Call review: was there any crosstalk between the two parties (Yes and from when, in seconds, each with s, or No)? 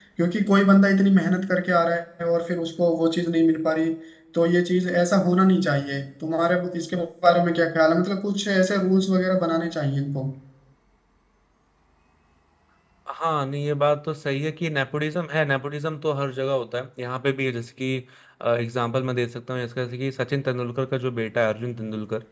No